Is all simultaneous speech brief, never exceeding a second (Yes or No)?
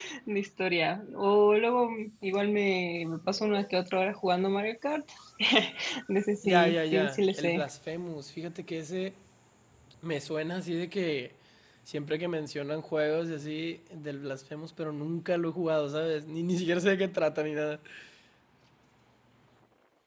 No